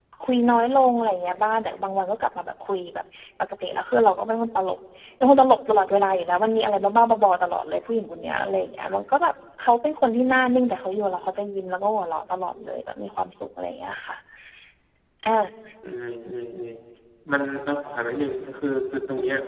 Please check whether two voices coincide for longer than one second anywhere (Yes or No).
No